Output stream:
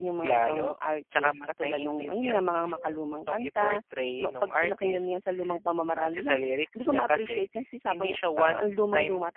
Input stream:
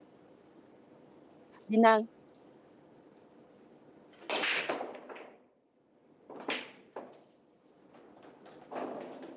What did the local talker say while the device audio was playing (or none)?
bina